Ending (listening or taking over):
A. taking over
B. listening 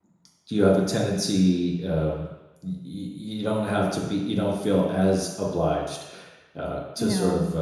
B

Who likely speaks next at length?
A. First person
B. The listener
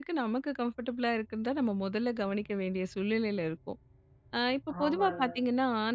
A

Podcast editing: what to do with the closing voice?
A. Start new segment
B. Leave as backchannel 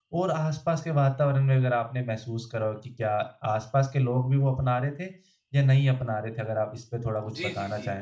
A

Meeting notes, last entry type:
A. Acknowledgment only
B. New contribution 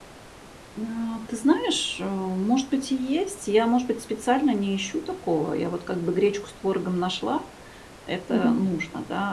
A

